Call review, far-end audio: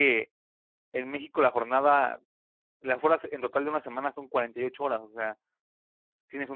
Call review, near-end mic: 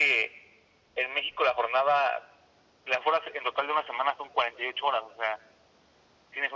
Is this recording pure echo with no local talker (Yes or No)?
Yes